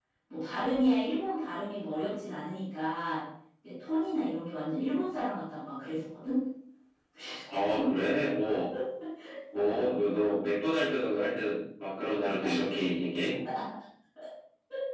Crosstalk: none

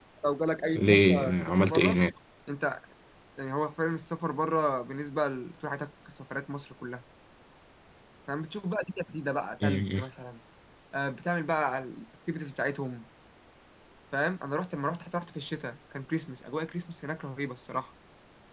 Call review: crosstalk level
present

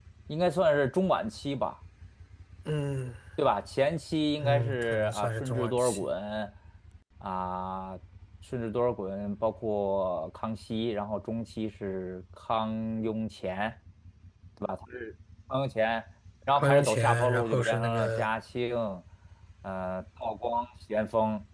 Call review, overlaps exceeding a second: present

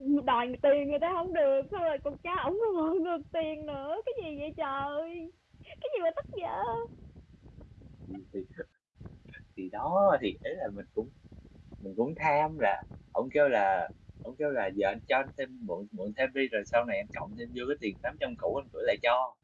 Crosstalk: none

